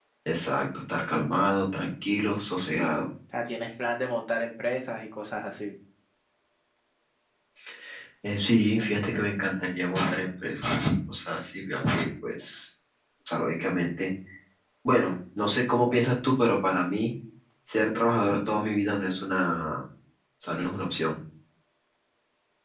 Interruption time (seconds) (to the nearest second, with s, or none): none